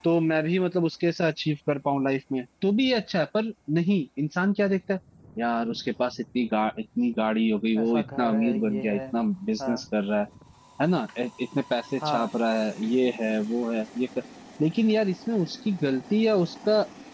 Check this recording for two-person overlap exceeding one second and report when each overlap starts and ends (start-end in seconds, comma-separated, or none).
7.8-9.0